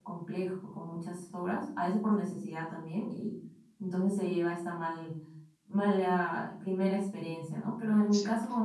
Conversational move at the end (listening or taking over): listening